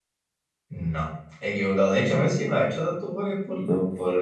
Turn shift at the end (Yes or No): No